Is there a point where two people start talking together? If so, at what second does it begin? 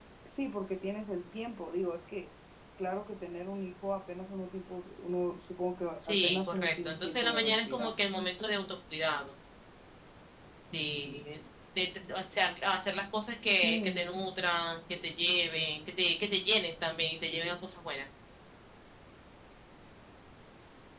6.0 s

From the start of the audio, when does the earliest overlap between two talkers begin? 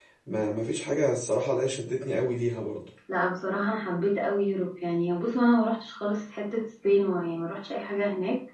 none

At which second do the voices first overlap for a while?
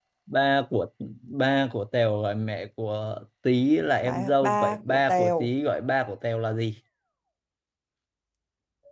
4.0 s

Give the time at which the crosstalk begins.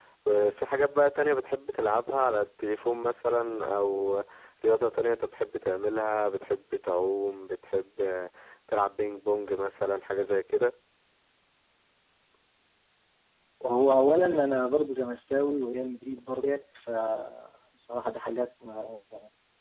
none

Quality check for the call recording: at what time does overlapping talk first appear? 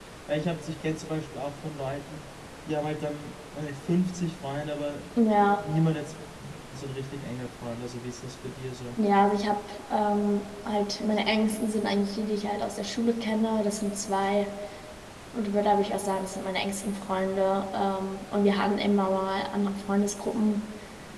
none

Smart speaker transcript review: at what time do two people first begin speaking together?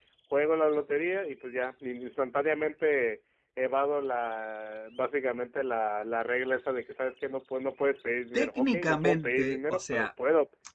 8.3 s

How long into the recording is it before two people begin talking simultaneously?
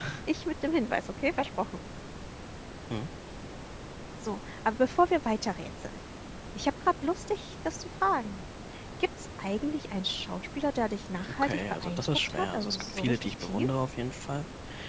11.4 s

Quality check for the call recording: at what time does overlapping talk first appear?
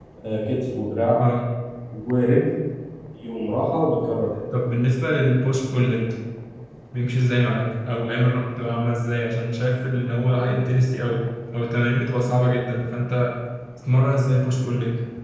none

